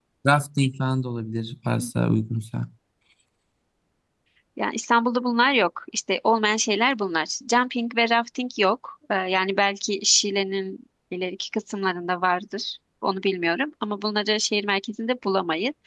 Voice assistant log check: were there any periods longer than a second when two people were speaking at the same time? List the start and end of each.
none

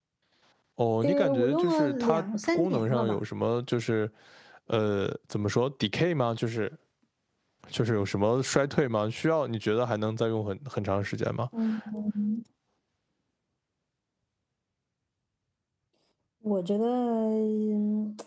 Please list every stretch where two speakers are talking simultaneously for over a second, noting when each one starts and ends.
1.0-3.2

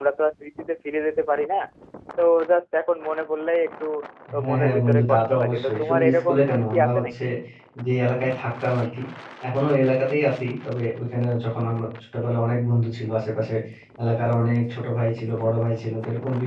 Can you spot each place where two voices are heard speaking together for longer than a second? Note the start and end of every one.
4.5-7.0

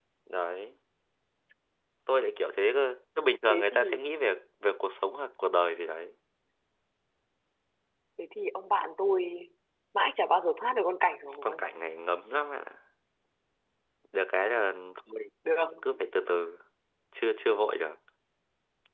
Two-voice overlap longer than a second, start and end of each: none

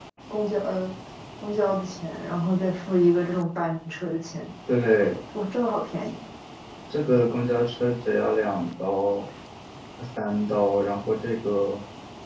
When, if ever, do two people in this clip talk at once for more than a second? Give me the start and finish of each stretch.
none

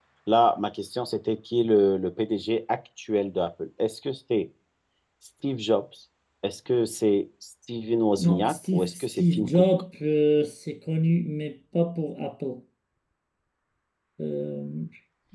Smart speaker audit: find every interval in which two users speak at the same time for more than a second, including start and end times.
8.2-9.6

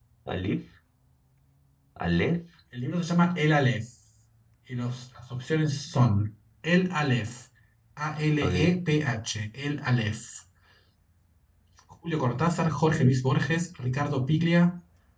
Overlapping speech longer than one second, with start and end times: none

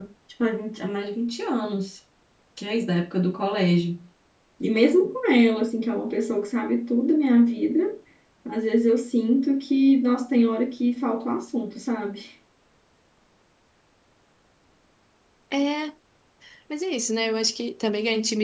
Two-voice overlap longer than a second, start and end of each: none

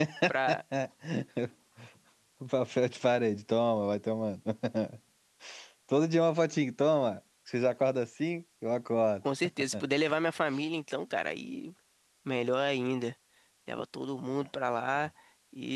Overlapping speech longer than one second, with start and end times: none

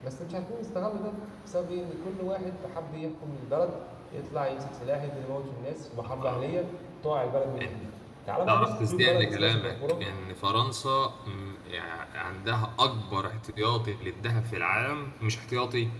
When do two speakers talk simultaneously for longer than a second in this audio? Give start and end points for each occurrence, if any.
8.5-10.0

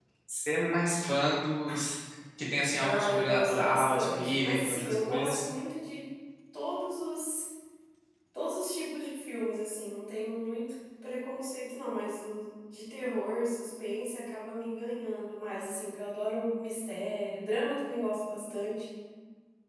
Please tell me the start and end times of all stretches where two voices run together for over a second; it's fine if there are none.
2.8-5.4

